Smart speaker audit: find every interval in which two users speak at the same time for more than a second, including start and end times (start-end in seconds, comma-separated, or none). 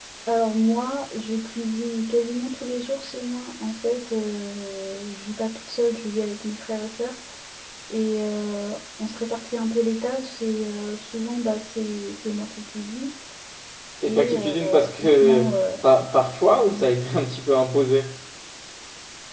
14.0-15.6